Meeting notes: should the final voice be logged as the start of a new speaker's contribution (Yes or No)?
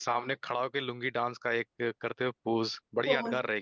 Yes